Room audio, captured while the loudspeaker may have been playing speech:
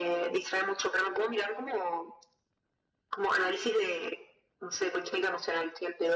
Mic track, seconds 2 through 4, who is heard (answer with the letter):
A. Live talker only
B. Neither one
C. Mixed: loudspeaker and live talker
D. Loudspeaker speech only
D